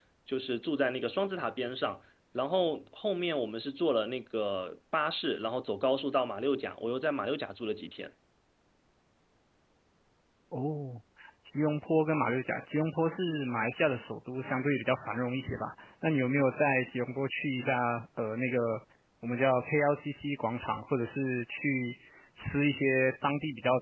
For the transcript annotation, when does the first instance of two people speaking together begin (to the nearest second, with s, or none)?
none